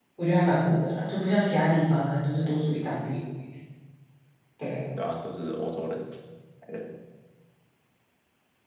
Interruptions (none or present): none